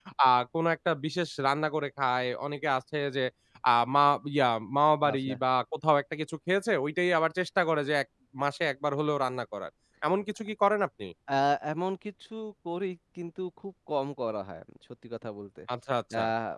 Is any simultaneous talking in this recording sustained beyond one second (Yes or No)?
No